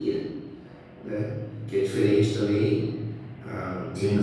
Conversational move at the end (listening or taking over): listening